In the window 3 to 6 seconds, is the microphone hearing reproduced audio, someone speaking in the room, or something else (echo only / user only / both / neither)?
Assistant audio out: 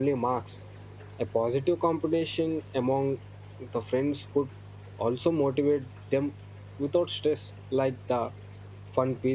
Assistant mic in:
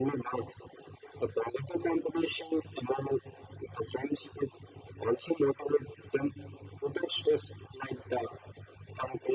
echo only